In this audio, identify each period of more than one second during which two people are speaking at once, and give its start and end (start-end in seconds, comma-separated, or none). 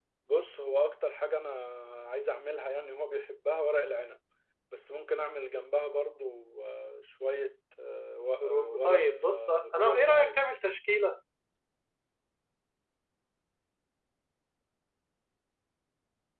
8.4-10.4